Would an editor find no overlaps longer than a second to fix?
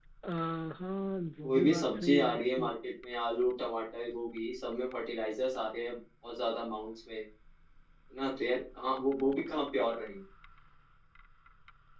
No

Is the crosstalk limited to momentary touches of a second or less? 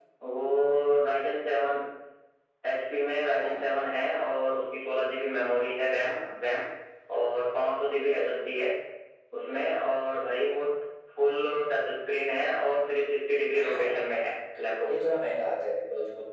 Yes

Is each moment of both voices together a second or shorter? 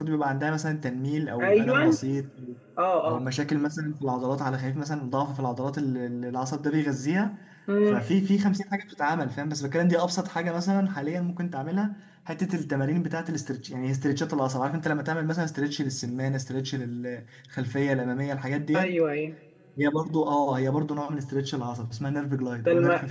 Yes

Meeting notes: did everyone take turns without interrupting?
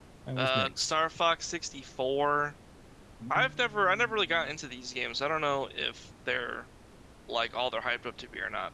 No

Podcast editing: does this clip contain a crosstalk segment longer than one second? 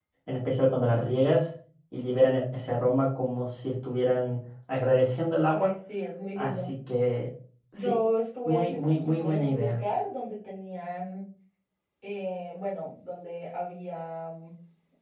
Yes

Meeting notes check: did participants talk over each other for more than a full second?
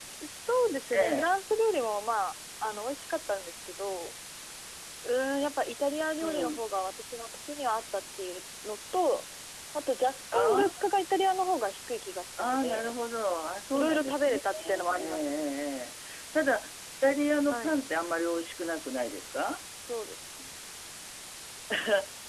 Yes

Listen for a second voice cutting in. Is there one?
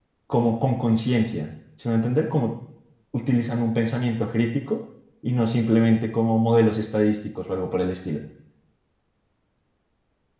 No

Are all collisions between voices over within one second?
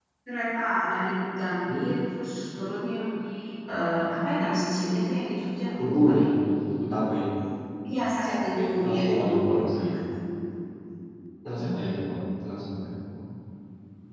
No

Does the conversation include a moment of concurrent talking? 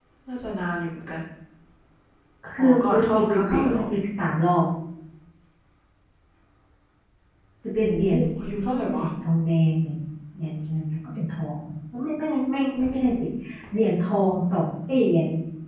Yes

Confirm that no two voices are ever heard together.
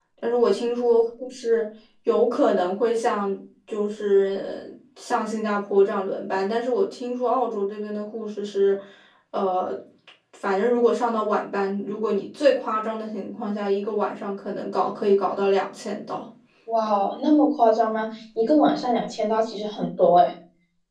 Yes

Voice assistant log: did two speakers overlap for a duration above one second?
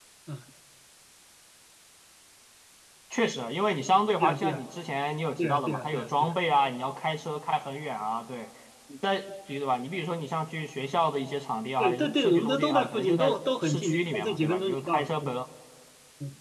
Yes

